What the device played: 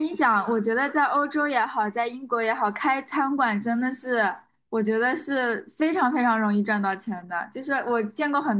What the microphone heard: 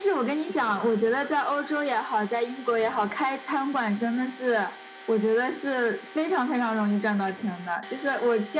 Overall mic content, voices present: echo only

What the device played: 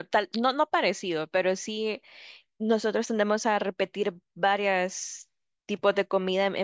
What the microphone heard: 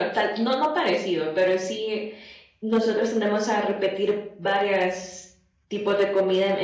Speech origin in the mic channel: echo only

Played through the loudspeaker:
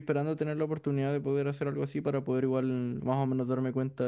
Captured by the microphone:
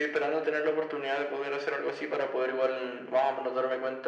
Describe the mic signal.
echo only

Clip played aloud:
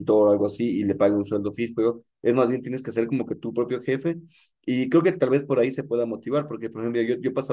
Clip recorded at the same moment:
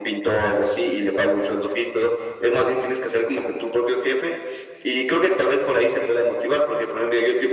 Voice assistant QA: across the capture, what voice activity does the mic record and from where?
echo only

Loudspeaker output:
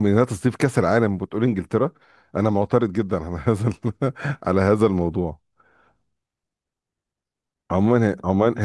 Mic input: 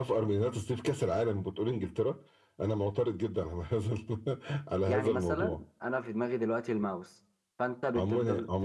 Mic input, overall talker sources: both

